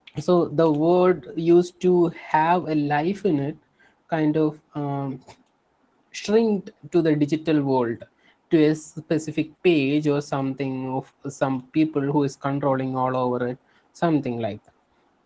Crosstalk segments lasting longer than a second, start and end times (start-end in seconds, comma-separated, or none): none